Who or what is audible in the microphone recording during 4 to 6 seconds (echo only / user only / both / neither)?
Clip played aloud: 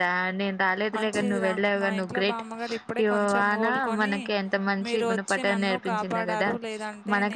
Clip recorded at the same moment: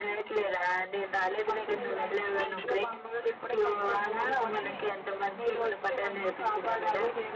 echo only